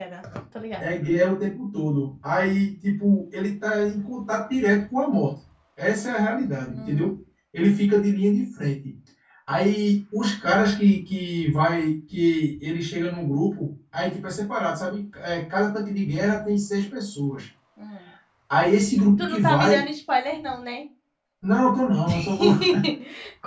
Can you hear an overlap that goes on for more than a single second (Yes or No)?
Yes